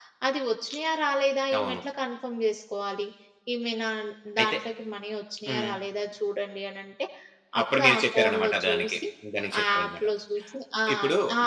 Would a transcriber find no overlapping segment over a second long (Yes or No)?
No